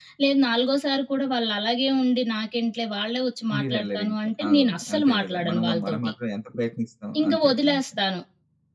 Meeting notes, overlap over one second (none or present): present